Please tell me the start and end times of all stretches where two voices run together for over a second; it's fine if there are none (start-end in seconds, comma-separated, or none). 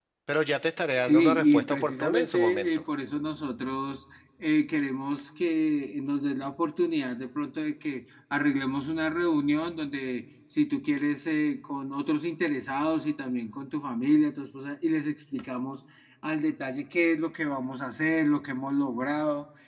1.0-2.8